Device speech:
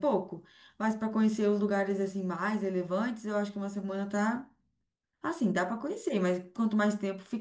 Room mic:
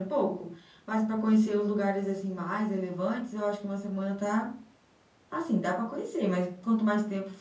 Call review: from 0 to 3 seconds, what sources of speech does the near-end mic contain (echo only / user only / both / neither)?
echo only